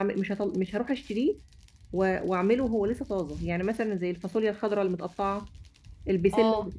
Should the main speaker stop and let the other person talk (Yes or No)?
No